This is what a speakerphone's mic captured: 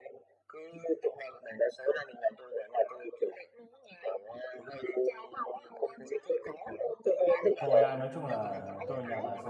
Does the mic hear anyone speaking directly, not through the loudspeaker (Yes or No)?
Yes